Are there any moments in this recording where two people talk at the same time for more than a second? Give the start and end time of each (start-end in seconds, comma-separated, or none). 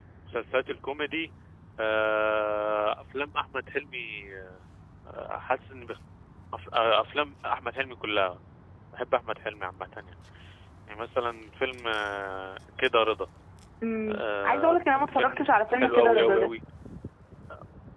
14.1-16.5